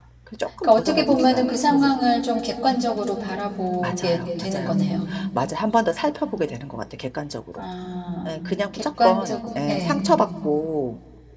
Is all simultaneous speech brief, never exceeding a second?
No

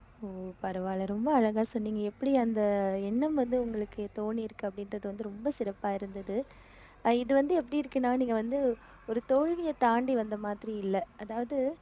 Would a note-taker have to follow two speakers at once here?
No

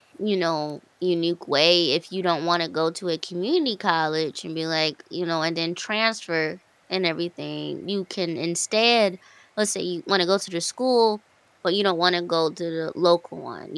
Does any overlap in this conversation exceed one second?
No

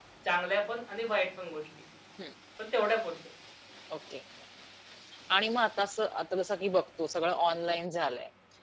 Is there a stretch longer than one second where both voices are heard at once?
No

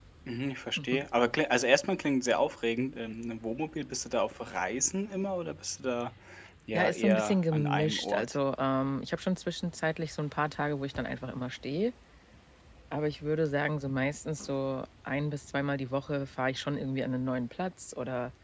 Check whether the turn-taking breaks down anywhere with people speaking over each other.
Yes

